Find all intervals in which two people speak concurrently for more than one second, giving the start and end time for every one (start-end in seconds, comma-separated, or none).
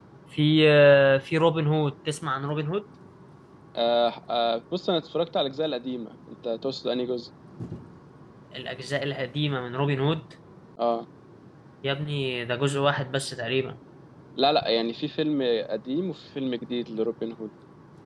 none